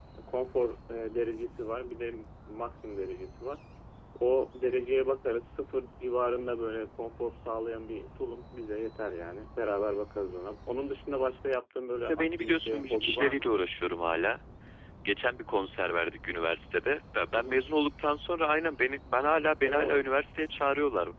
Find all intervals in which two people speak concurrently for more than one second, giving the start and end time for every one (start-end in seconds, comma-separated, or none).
12.0-13.5